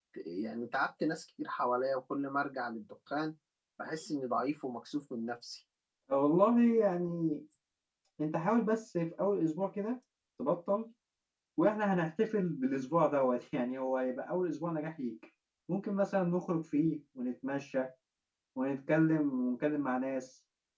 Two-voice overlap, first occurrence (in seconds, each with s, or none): none